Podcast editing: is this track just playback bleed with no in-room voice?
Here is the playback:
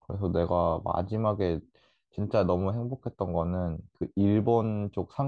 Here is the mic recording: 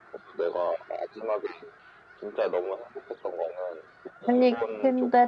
No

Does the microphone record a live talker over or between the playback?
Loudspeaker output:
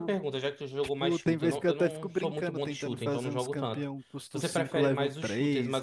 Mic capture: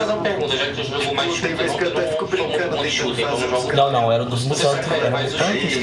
Yes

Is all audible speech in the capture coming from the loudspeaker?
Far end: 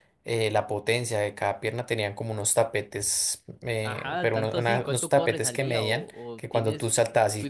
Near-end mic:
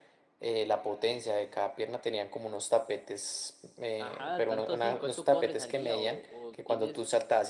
Yes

